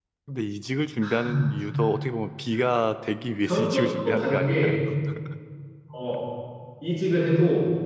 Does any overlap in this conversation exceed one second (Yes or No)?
Yes